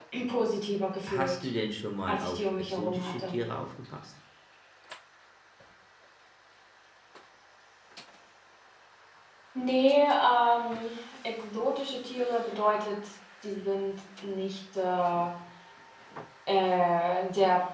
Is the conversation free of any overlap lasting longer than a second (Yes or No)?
No